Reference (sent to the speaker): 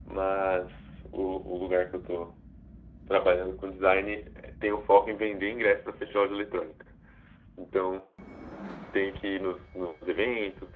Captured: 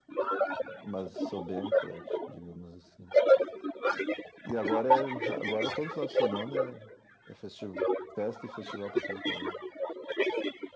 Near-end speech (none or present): present